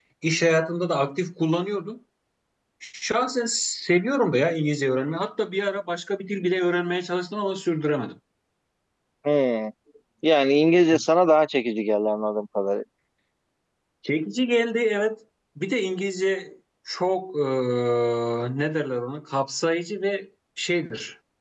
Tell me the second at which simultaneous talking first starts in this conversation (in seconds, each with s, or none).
none